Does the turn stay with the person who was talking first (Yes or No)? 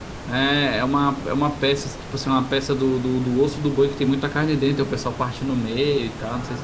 No